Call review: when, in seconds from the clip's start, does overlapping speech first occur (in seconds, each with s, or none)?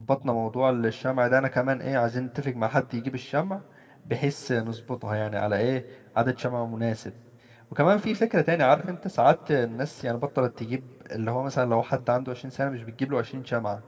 none